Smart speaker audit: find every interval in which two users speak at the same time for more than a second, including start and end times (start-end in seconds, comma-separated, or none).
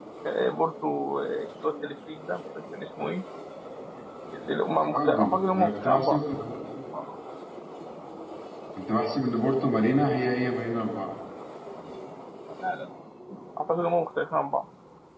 4.8-6.2